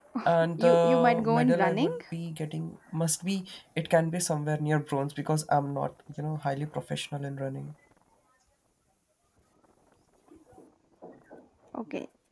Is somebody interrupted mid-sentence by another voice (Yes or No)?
Yes